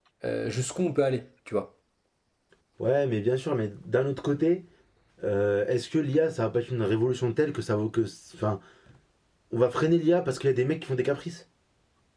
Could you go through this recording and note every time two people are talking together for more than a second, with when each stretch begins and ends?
none

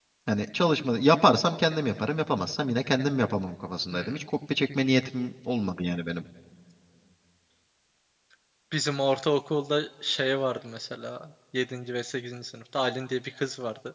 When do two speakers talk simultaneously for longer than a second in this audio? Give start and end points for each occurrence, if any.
none

